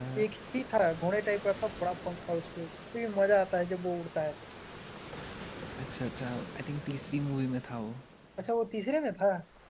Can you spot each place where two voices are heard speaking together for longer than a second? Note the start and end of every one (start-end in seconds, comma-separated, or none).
none